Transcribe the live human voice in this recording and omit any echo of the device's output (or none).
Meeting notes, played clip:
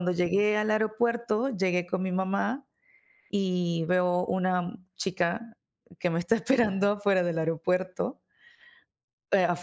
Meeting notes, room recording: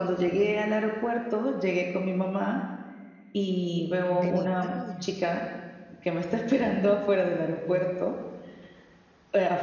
En Italia.